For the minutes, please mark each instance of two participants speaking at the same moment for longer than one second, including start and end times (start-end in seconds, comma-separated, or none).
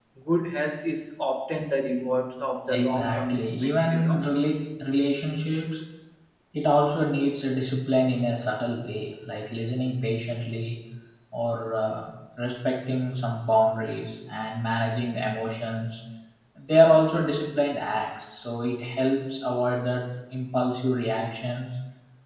2.7-4.3